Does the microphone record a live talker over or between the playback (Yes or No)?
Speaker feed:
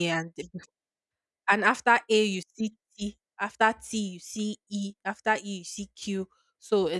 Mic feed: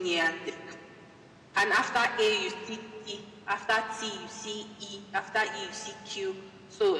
No